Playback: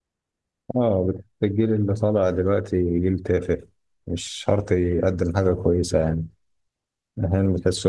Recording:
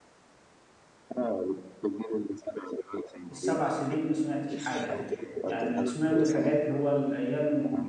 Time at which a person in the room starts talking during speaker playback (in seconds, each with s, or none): 3.3 s